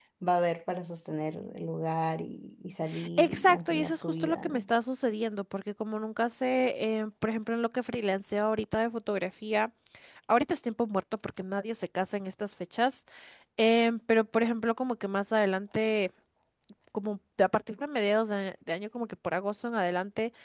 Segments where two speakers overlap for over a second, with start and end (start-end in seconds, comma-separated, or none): 3.2-4.6